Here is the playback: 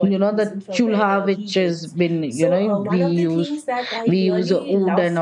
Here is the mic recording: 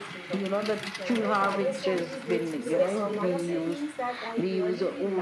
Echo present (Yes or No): Yes